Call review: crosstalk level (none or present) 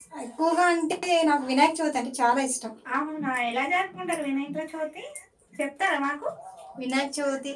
none